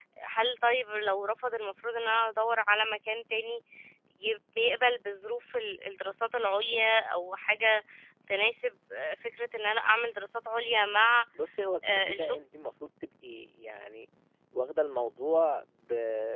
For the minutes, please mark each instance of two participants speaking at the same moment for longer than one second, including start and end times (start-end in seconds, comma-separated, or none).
none